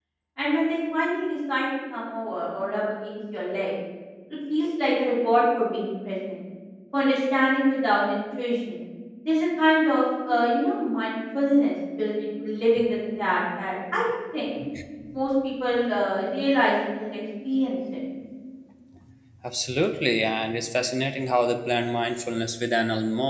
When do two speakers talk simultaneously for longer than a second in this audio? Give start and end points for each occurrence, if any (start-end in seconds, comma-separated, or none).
none